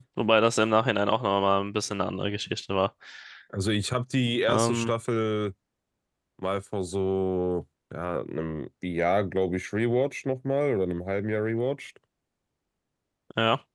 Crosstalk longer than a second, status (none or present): none